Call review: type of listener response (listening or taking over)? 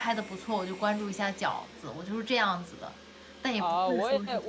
taking over